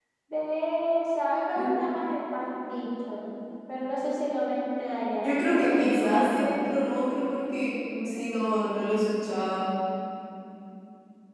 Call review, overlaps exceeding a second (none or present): present